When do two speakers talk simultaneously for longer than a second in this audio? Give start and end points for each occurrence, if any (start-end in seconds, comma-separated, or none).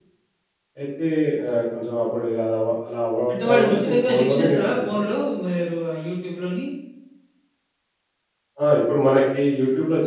3.3-5.0